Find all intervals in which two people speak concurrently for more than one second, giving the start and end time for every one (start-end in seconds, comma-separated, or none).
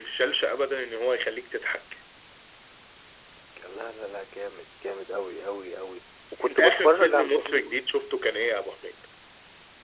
6.5-7.7